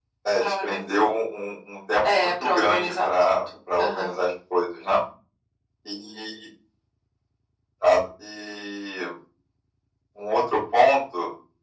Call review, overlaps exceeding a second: present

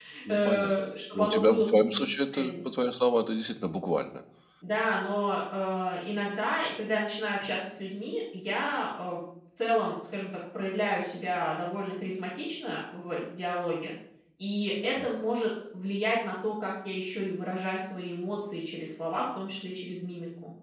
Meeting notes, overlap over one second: present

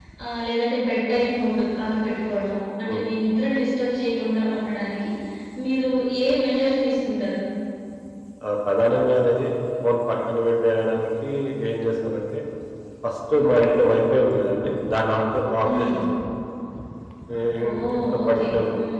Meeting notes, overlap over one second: present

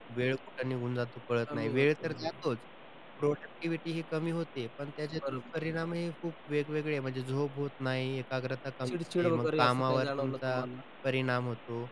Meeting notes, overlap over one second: present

